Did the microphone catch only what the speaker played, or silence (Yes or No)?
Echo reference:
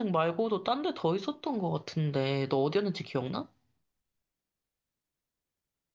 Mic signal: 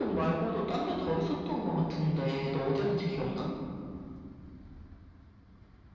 Yes